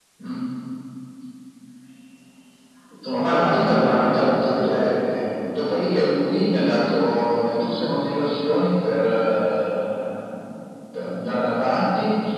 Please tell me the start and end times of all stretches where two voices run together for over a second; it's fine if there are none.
3.1-4.9

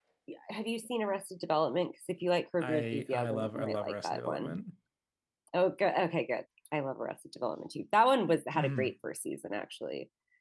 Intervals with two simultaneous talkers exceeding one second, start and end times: 2.6-4.5

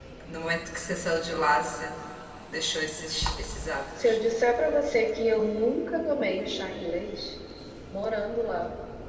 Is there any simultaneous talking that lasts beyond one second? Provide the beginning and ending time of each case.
none

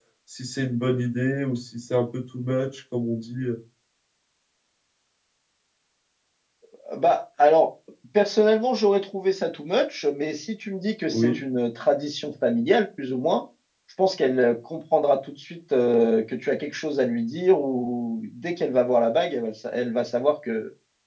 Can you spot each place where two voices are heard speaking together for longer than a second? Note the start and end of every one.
none

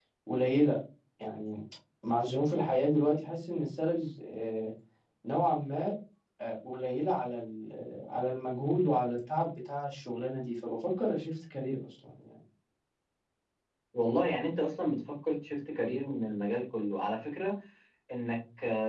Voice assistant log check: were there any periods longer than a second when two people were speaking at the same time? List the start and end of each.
none

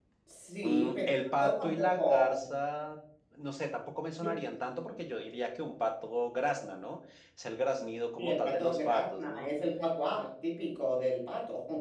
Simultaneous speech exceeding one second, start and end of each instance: 0.6-2.5, 8.2-9.5

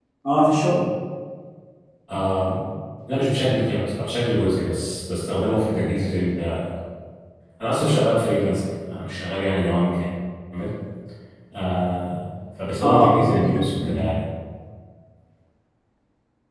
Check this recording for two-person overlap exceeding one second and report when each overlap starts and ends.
12.8-14.1

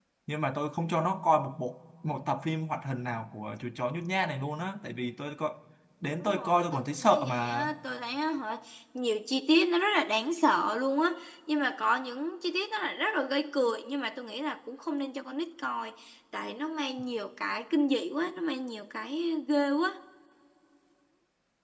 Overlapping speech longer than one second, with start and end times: 6.2-7.7

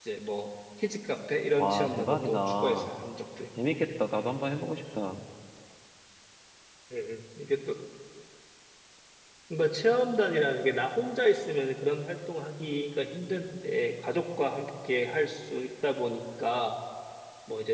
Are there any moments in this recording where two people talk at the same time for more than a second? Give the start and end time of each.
1.6-2.9

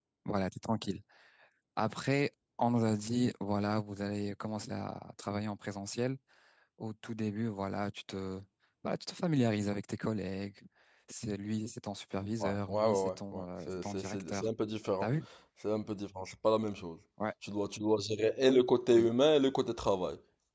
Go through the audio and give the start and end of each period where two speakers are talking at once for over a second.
12.4-14.5

